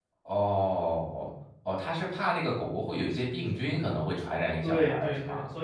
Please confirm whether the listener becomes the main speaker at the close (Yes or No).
Yes